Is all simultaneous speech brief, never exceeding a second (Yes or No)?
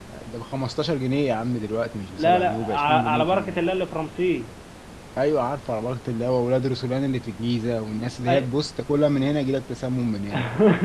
No